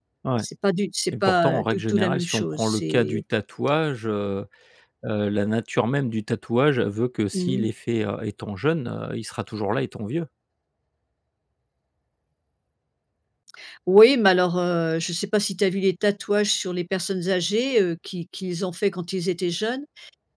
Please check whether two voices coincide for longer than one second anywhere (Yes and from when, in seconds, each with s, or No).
Yes, from 1.1 s